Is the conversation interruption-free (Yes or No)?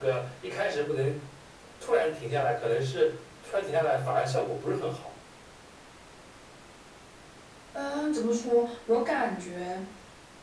Yes